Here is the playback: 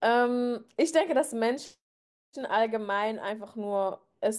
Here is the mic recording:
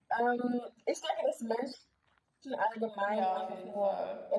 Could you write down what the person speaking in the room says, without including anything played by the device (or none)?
Ja, auf jeden Fall.